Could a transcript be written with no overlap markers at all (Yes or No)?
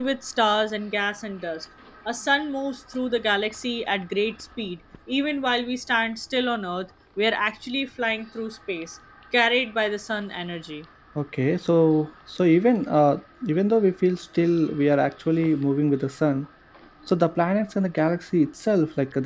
Yes